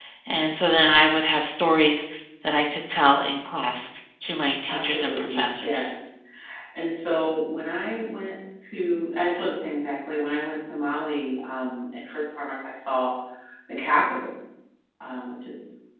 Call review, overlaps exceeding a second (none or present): present